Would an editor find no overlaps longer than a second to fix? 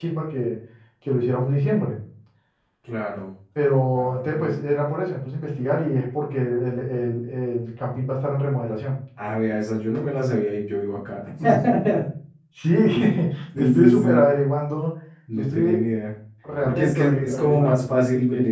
No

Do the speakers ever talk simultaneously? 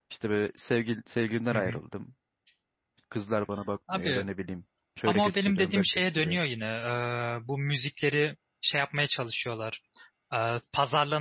Yes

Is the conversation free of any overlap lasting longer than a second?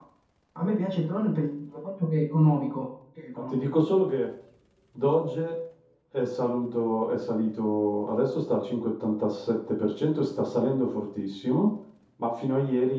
Yes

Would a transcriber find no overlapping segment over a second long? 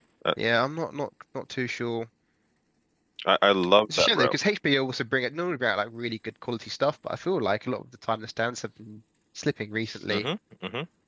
Yes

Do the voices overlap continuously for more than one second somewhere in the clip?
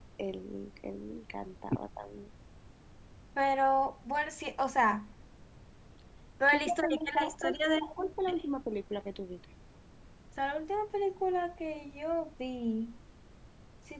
Yes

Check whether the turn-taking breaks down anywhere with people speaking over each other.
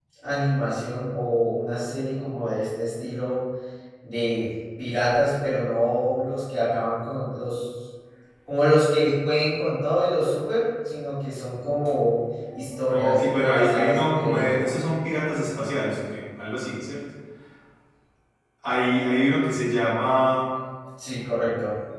Yes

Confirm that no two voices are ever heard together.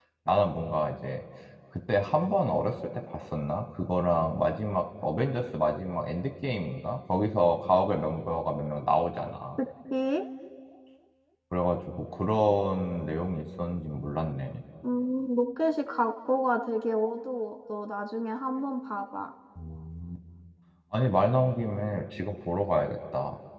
Yes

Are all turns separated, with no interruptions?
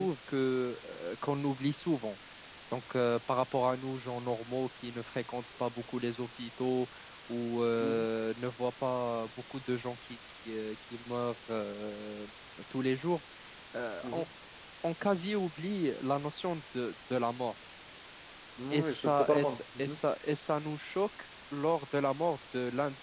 No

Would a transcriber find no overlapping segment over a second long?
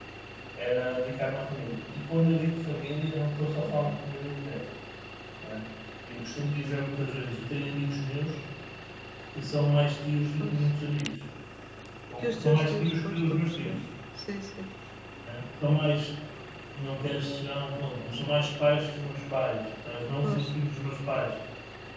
No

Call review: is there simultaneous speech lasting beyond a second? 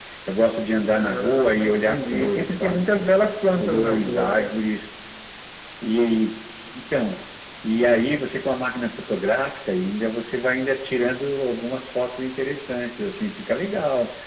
Yes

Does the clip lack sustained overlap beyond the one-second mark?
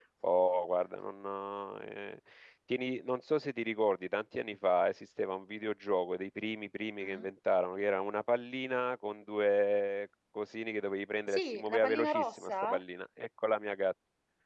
No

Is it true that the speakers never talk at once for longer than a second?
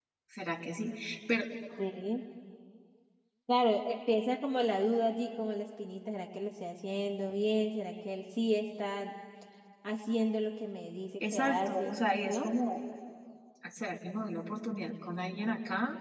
No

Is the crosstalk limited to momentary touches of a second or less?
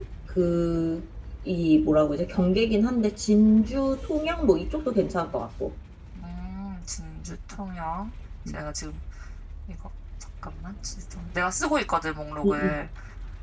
Yes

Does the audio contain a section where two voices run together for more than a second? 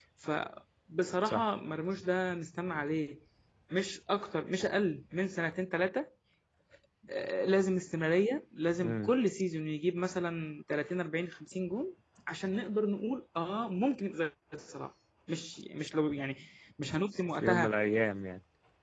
No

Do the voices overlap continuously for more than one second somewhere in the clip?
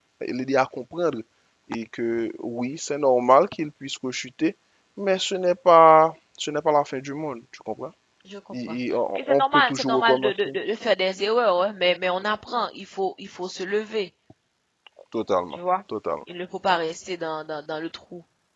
Yes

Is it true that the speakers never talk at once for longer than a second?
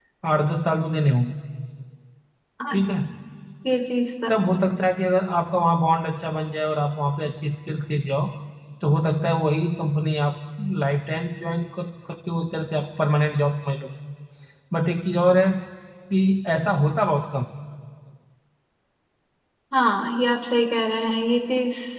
Yes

